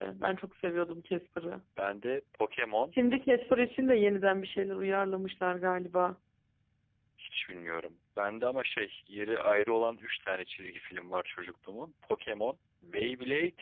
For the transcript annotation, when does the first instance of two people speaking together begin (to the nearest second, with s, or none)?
none